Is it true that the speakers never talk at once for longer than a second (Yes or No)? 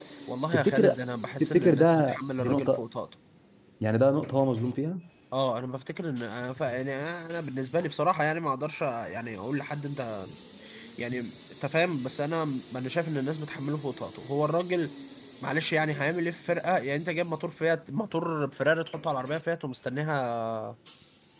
No